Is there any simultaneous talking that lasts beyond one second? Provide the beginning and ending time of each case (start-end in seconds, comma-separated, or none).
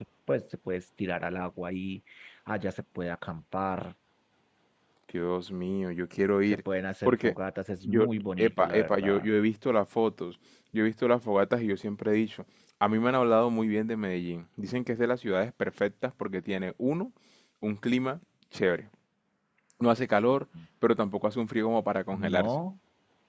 7.8-9.3